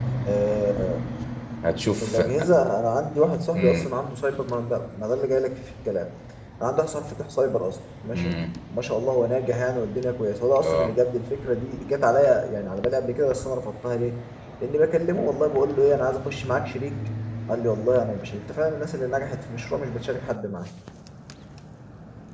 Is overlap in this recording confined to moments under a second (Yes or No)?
Yes